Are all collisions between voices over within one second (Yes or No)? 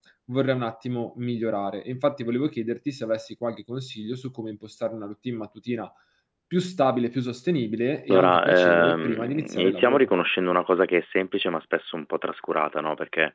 No